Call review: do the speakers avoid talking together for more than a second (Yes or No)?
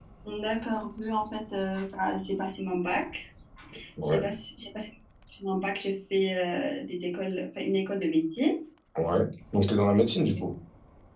Yes